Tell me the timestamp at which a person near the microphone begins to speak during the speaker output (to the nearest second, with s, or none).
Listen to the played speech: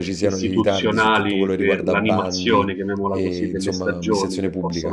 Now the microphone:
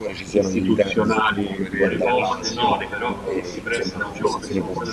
2 s